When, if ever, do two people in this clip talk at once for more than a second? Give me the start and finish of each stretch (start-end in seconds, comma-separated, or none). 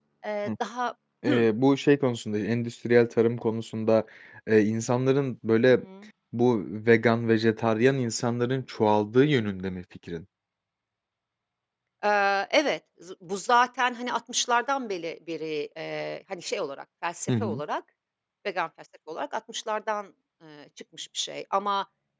none